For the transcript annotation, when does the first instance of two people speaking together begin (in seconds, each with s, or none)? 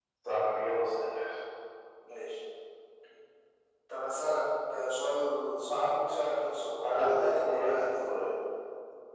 6.8 s